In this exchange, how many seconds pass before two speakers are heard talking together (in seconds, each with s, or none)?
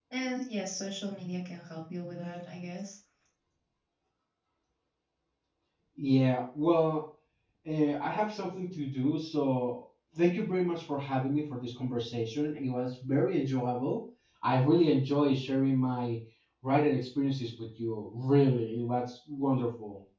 none